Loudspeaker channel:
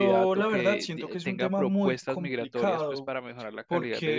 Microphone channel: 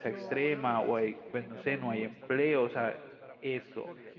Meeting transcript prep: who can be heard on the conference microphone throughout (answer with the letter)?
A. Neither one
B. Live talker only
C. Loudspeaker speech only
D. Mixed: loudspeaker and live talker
D